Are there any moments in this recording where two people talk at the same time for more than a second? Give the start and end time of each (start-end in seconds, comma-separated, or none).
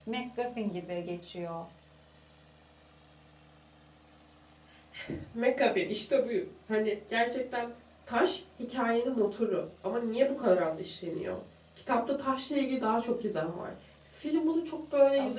none